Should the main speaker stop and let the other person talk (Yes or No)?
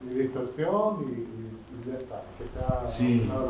Yes